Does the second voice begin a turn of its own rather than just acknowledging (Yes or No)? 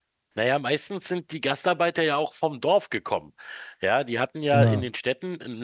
No